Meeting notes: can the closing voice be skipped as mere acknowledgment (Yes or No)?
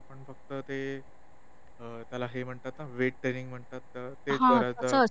No